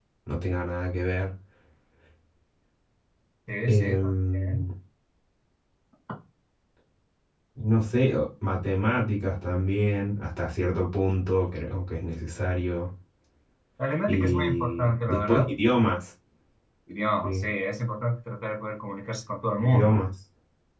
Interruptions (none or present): present